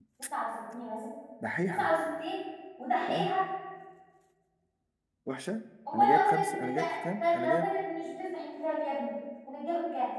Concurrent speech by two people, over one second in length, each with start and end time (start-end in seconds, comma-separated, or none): 5.9-7.7